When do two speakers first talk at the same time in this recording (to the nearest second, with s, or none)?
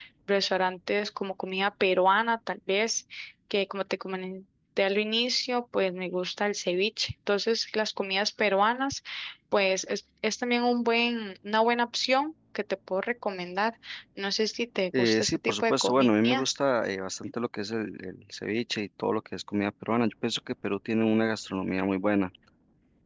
15 s